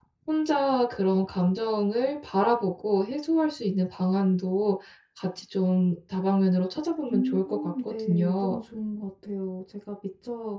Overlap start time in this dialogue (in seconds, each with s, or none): 7.1 s